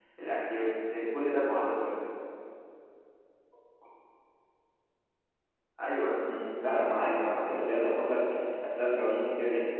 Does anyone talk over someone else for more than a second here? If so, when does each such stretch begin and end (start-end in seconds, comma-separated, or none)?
none